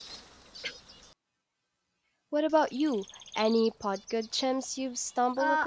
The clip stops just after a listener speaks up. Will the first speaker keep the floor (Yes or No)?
No